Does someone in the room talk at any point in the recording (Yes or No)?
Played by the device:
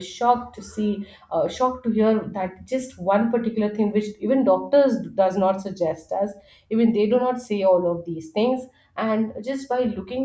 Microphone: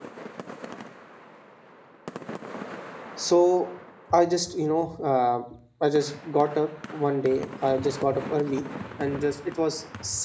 Yes